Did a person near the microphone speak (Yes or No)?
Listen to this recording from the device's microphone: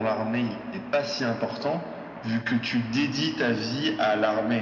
No